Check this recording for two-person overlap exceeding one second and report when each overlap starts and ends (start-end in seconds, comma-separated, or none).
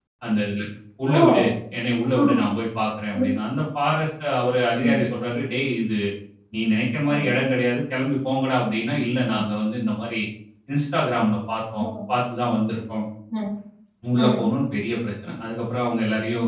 none